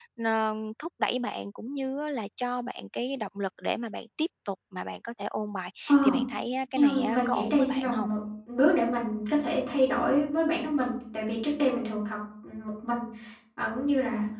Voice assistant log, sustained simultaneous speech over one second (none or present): present